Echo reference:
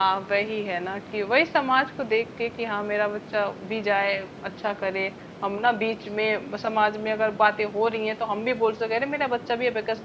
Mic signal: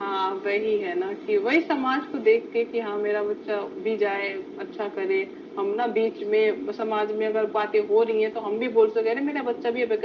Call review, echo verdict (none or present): present